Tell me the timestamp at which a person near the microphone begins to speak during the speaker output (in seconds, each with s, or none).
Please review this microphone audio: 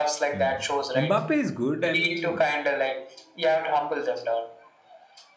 0.3 s